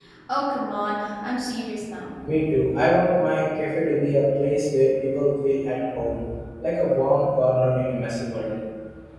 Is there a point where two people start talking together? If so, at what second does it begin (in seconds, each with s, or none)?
none